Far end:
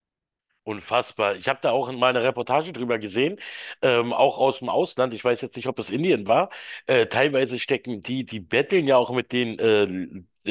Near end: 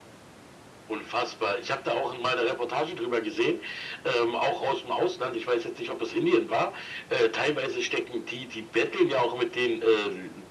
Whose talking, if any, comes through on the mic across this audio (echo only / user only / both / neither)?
echo only